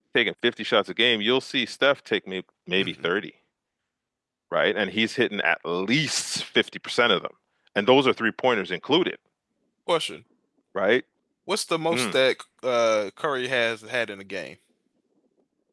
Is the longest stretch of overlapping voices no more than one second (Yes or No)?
Yes